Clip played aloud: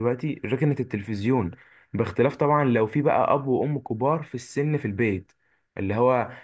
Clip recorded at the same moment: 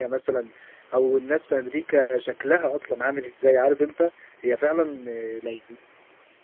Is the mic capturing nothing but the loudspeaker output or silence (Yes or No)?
No